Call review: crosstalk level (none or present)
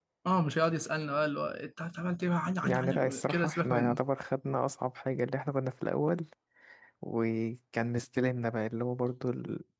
present